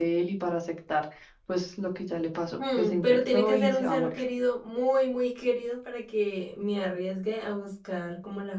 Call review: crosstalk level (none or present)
present